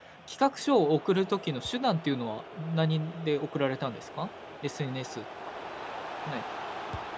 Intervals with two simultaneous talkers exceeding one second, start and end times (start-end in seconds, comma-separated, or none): none